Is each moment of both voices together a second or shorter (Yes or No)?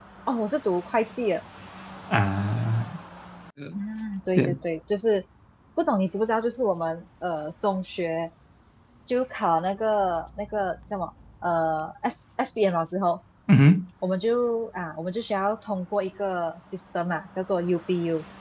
Yes